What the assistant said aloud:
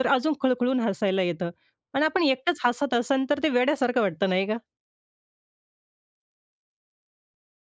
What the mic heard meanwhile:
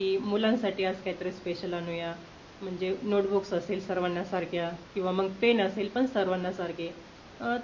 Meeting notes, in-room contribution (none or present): present